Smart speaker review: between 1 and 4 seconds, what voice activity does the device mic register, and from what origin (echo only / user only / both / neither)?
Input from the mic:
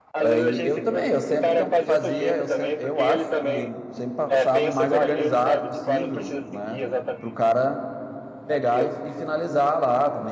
both